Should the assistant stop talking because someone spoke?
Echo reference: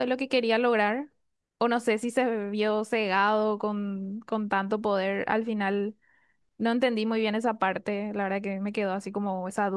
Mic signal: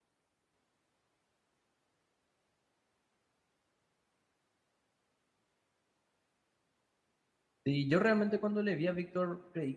Yes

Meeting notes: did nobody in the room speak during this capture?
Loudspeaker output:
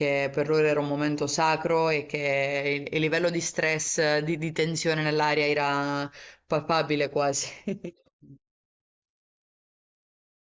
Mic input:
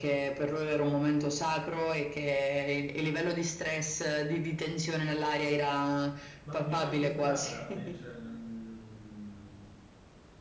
No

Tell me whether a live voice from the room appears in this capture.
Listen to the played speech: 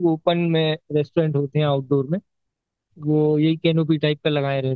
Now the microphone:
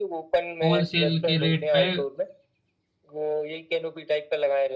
Yes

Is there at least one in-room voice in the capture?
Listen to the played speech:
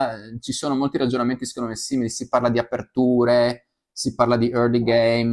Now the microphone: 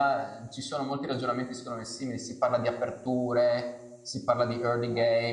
No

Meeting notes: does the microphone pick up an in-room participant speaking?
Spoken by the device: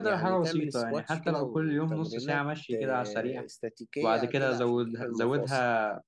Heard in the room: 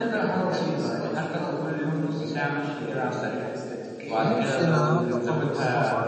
Yes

